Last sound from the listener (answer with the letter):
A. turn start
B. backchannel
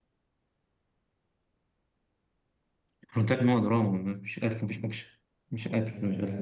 A